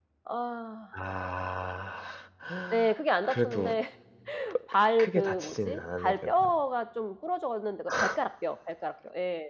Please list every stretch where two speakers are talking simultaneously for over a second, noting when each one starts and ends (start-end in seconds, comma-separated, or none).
5.0-6.3